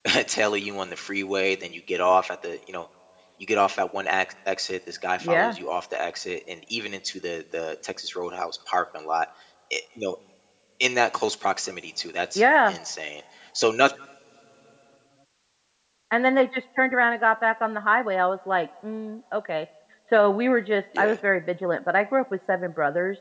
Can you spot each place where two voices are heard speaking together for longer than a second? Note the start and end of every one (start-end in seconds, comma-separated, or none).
none